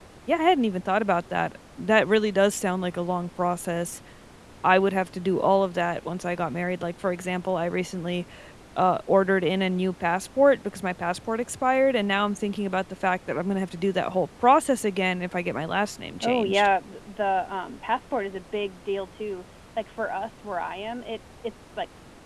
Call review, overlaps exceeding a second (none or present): none